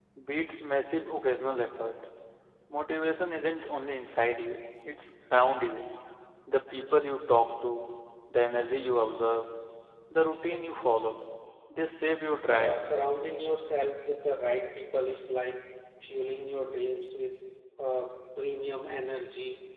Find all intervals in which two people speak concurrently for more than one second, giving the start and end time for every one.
none

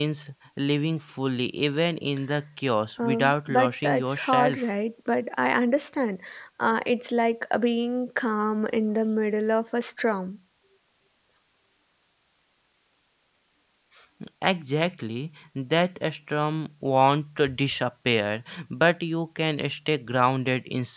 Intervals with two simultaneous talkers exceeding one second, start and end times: 3.0-4.6

